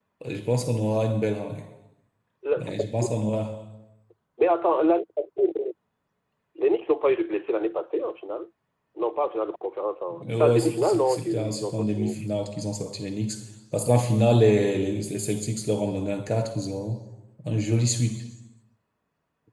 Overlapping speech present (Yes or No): Yes